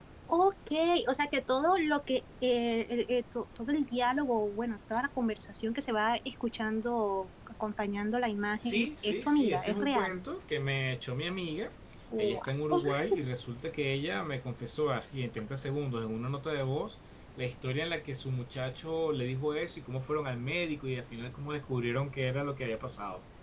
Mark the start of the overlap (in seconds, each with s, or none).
8.6 s